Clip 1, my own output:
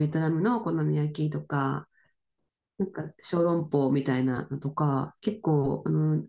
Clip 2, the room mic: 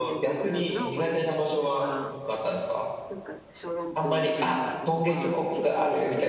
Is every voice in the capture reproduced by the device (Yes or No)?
No